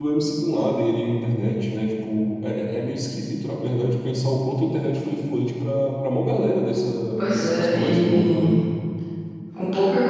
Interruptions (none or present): present